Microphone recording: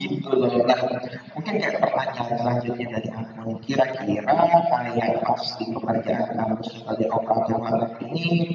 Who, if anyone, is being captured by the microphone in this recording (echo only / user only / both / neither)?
echo only